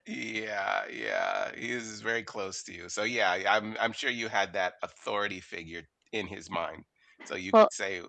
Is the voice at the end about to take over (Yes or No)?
No